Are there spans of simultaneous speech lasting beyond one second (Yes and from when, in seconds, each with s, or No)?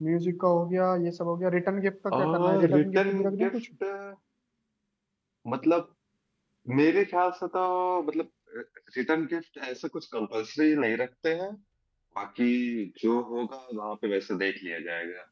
Yes, from 2.1 s